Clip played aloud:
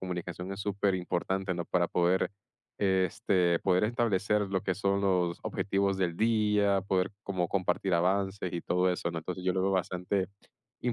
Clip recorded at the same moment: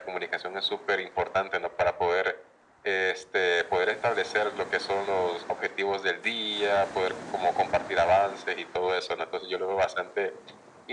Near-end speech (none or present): none